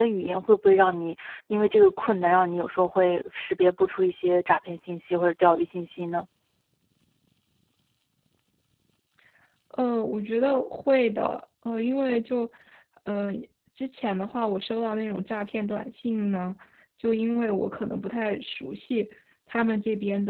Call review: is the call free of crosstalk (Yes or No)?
Yes